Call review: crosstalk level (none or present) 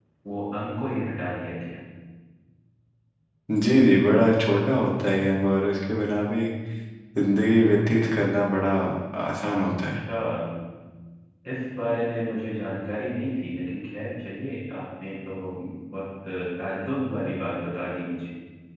none